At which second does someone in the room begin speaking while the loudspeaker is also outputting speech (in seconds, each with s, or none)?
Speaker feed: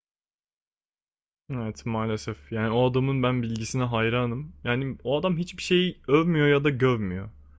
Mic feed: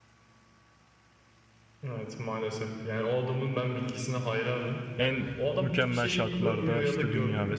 5.0 s